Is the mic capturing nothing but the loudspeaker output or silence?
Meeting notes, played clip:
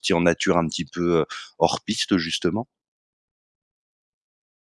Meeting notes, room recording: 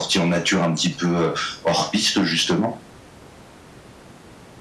Yes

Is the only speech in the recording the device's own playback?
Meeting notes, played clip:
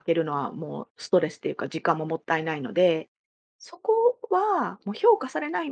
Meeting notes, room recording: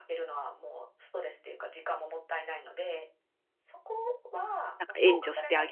No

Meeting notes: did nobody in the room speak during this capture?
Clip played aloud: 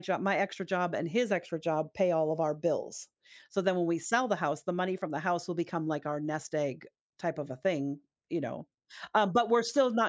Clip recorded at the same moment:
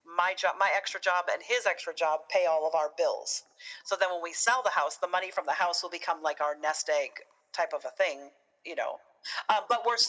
Yes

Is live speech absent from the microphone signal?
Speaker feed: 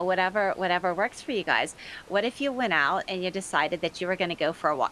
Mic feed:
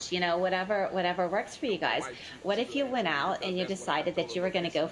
No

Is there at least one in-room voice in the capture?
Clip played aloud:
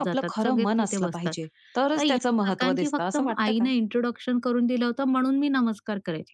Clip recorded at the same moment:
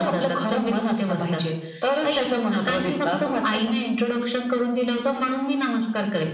Yes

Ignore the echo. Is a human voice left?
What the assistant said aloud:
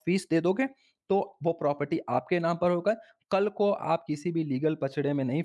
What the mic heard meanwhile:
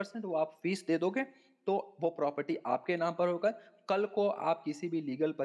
No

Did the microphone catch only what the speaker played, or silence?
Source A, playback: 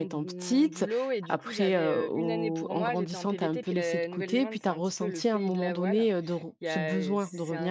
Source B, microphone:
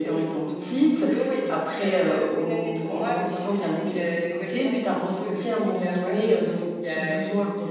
Yes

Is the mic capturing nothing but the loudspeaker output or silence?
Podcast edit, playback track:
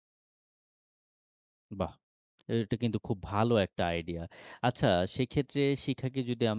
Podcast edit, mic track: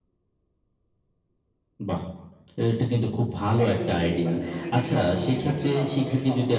No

